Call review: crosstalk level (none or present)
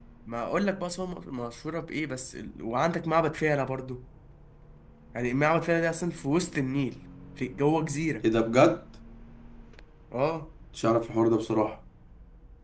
none